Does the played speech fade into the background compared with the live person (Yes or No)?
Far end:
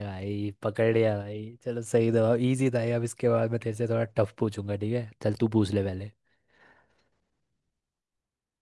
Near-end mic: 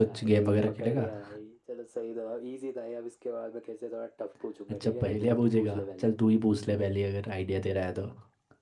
Yes